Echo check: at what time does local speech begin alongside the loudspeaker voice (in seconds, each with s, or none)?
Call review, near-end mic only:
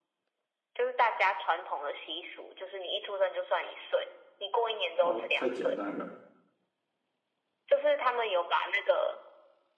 5.0 s